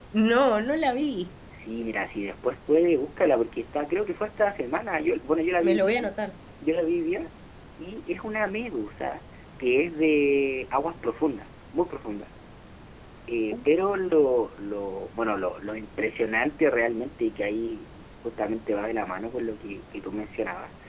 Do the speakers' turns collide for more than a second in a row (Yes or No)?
No